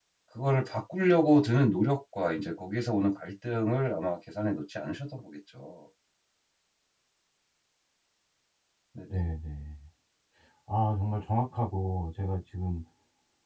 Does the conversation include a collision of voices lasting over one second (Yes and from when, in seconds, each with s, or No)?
No